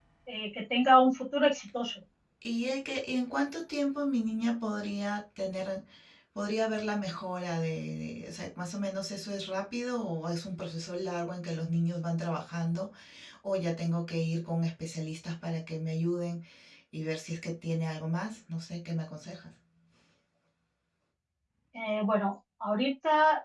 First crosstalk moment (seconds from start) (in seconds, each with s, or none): none